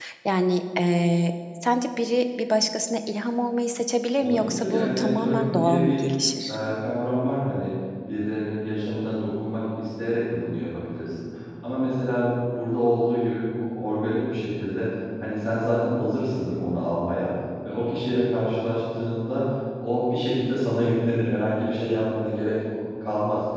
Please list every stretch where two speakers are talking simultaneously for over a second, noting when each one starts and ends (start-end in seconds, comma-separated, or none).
4.2-6.0